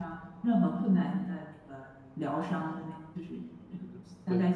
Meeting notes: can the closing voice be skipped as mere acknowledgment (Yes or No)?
Yes